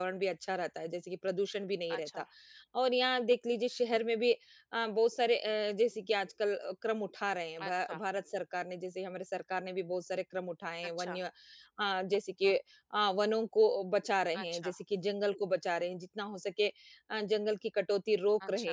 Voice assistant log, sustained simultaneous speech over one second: none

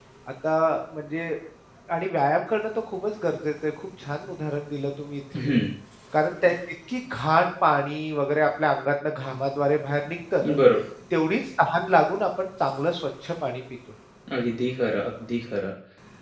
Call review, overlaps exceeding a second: none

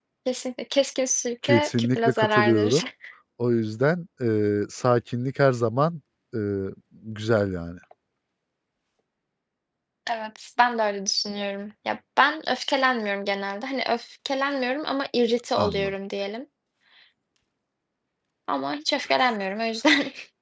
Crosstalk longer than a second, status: present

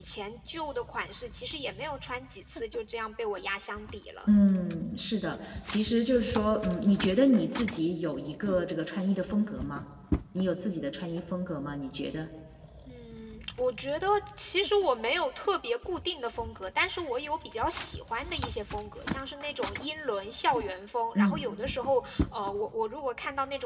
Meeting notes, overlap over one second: none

